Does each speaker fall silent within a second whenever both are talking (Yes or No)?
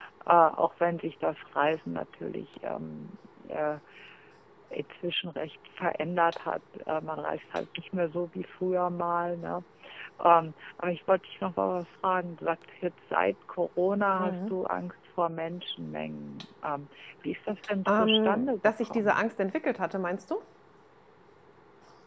No